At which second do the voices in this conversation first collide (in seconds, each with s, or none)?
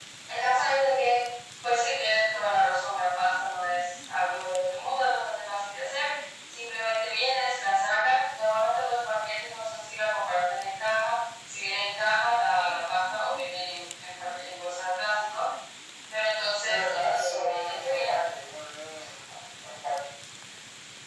16.6 s